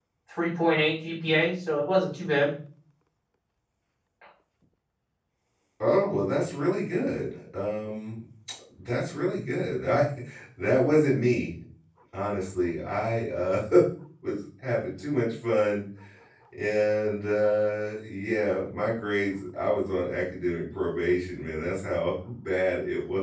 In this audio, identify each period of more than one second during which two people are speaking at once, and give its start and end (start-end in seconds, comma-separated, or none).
none